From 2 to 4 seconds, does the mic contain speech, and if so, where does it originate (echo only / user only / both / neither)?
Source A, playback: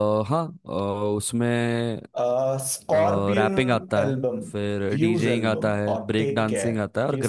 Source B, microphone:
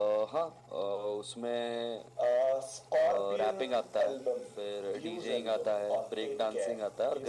echo only